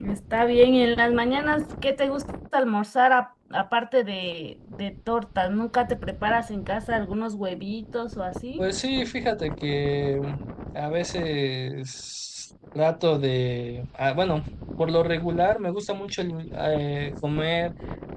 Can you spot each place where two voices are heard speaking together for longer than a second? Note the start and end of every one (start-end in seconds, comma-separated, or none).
none